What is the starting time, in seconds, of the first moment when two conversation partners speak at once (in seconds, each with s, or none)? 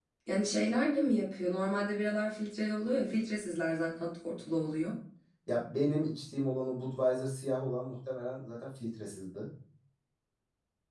none